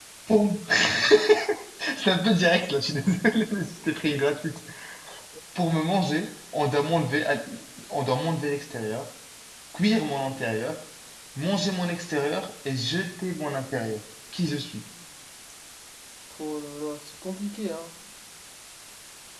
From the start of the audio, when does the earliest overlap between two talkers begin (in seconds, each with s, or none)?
none